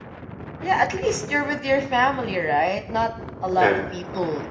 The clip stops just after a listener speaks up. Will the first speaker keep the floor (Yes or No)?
Yes